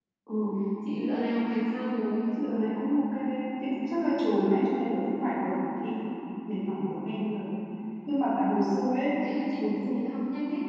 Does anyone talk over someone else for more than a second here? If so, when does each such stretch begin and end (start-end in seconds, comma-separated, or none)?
none